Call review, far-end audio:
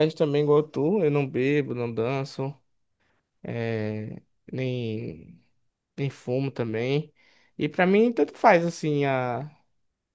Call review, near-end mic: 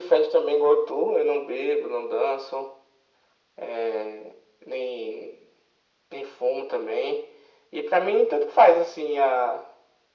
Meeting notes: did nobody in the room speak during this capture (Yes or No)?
Yes